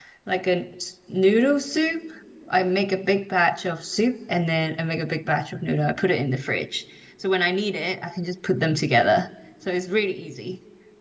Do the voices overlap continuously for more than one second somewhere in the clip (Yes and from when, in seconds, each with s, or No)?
No